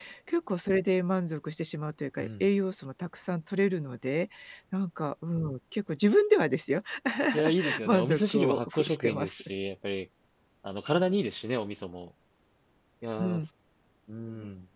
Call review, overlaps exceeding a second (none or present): present